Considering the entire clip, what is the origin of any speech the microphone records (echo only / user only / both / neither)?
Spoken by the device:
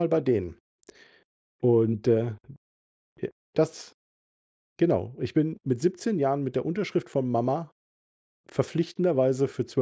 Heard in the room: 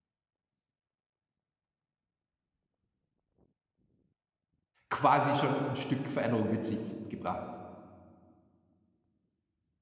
user only